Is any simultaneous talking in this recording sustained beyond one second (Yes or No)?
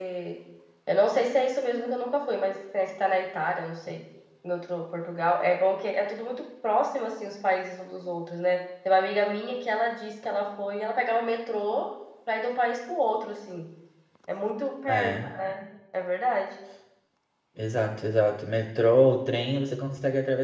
No